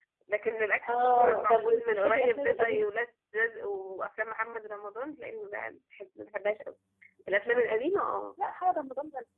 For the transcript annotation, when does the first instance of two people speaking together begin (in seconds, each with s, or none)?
0.9 s